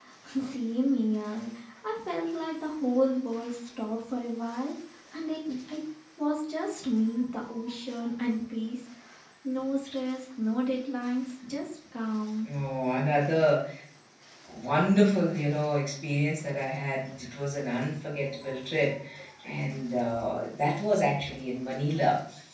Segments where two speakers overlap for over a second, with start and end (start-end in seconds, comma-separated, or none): none